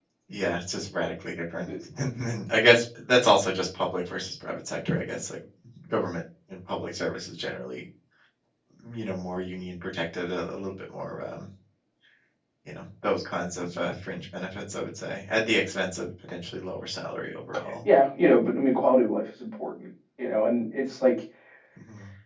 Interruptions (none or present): none